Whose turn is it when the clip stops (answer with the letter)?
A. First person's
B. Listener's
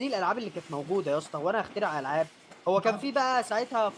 A